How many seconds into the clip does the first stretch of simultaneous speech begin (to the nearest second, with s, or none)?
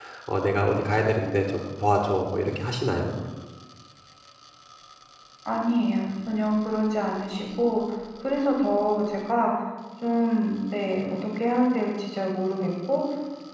none